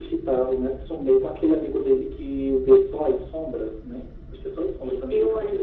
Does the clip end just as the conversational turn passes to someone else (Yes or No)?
Yes